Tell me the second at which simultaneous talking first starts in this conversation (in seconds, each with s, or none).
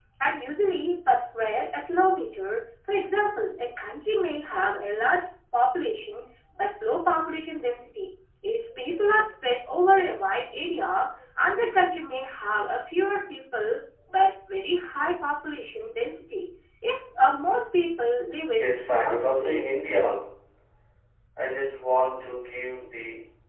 18.5 s